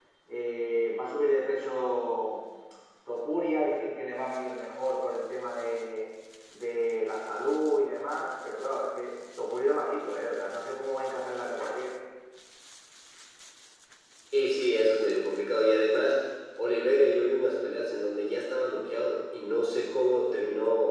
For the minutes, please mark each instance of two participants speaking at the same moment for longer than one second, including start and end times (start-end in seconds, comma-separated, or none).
none